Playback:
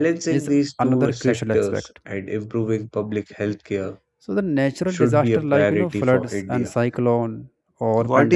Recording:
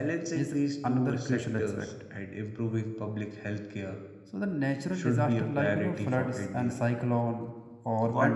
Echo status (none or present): present